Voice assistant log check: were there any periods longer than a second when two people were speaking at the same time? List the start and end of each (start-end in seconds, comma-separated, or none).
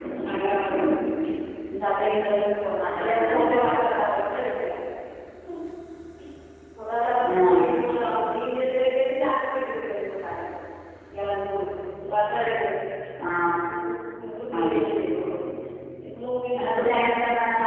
none